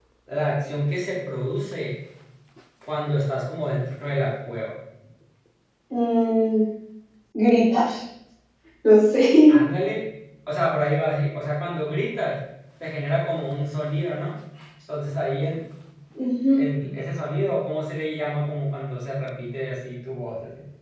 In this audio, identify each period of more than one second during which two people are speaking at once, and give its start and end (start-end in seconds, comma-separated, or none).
none